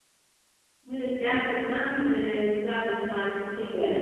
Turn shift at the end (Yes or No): Yes